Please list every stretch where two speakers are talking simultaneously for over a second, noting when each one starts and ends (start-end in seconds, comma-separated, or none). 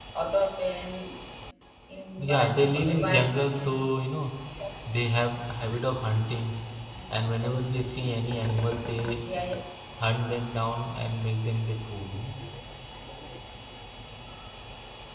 2.2-3.9